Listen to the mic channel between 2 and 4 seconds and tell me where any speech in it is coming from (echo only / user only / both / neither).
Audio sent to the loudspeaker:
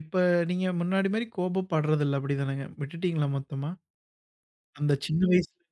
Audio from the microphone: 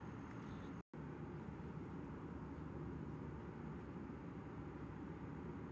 neither